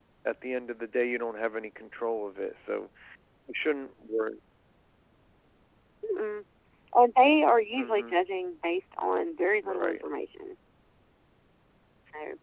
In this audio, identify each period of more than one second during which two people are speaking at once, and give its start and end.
none

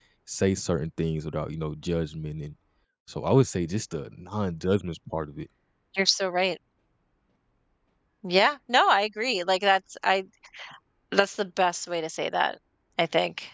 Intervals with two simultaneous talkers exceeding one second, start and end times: none

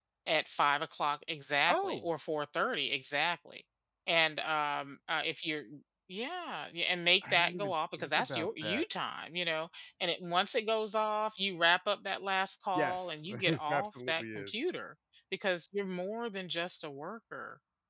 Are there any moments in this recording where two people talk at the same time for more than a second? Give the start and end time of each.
7.3-8.8, 12.8-14.5

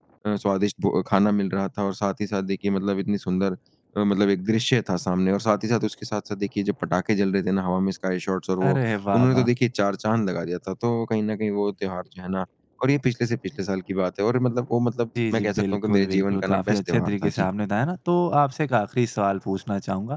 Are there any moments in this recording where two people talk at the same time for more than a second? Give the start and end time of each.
15.3-17.5

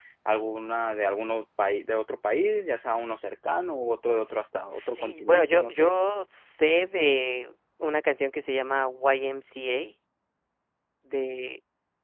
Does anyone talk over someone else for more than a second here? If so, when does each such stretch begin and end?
4.7-6.0

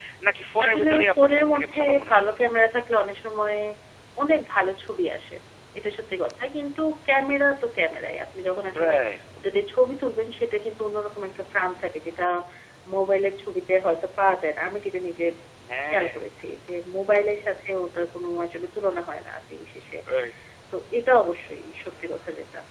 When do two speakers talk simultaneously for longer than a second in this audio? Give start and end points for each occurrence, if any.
0.6-2.3

